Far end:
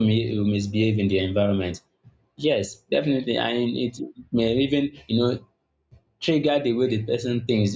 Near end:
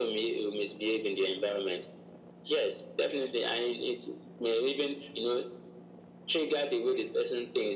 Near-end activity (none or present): none